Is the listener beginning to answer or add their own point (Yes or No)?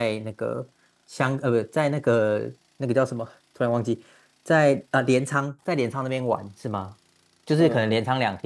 No